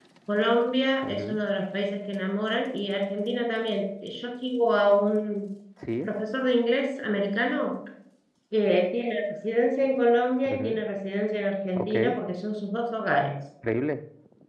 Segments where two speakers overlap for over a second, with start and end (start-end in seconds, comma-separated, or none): none